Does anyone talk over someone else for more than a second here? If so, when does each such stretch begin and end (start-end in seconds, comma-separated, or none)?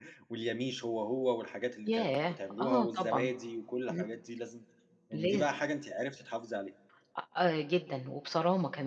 1.9-3.3